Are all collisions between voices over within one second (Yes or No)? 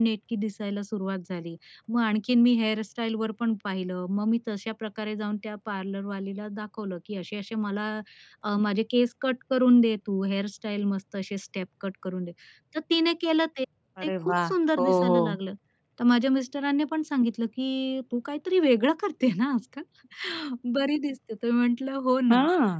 No